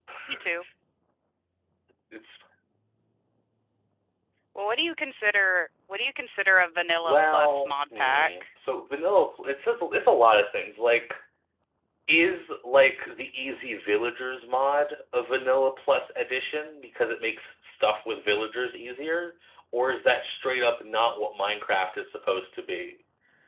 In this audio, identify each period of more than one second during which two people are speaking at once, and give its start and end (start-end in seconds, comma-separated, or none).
7.0-8.3